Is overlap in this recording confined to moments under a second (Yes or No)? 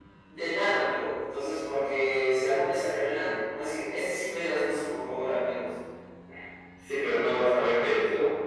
Yes